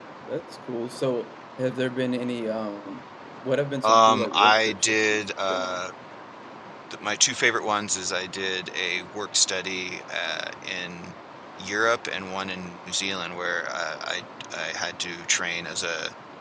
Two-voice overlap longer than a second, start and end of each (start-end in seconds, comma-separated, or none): 3.8-5.8